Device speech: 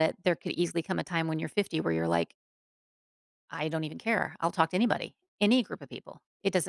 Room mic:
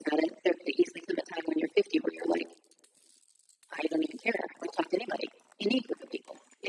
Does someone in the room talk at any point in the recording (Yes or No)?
No